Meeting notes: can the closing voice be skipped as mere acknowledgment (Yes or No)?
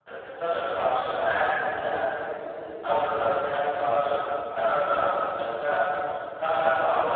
Yes